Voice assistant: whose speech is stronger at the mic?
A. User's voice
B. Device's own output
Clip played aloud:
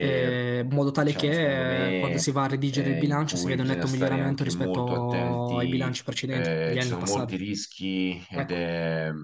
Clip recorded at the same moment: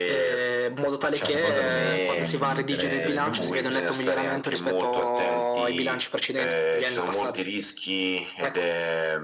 B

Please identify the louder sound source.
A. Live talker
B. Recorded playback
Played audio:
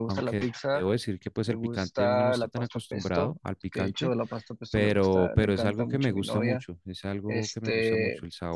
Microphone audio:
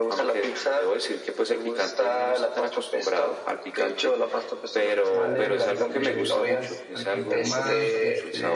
B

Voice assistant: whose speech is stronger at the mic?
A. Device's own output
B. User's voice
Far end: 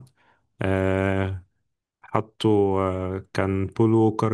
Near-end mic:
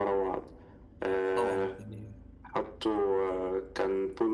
A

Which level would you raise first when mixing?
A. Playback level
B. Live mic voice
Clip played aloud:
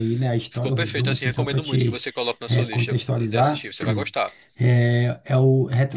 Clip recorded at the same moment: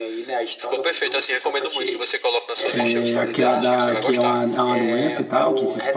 A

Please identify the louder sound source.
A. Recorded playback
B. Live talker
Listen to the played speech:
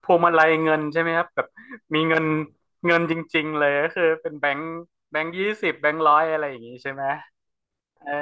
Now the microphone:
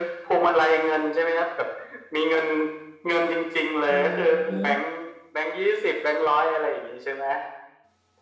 A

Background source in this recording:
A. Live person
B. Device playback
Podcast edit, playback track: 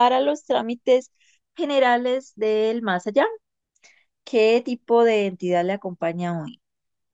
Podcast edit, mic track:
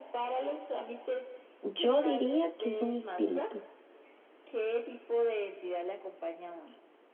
B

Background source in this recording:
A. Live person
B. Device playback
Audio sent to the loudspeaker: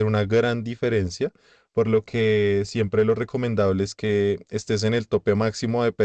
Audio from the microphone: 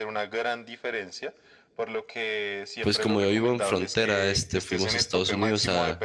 B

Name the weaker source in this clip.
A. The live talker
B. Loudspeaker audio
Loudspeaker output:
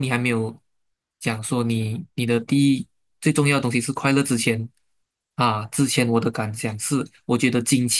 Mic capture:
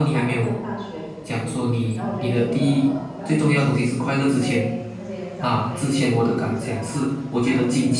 A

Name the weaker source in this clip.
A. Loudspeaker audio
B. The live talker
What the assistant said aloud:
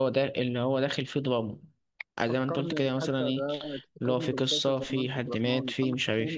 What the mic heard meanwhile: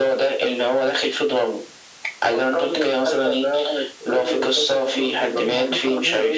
B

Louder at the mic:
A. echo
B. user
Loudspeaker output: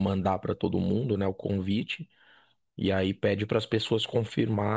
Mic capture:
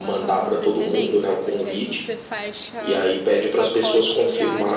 A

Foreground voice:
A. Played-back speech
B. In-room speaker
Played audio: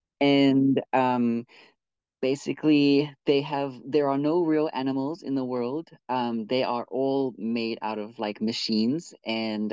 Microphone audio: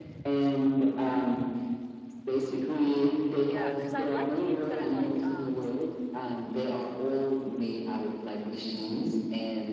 A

